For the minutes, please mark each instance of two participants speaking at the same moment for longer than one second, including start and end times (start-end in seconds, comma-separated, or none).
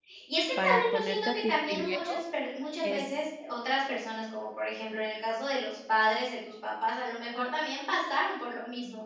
0.6-2.0